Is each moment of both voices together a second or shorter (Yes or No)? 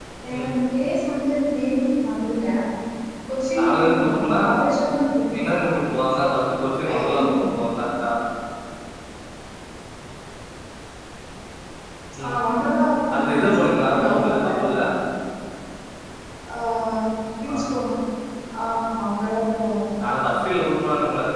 No